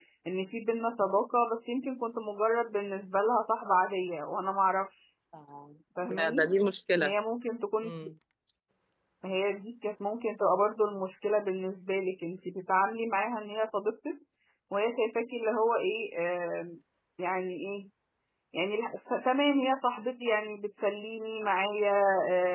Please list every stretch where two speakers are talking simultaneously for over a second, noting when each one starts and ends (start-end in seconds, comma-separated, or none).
none